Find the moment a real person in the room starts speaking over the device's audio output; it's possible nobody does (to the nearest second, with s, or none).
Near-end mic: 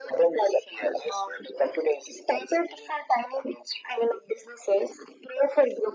none